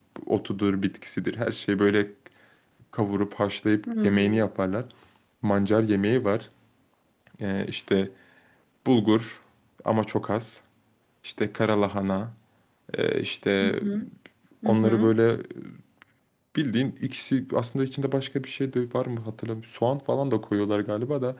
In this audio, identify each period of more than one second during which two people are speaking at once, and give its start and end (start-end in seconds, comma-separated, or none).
none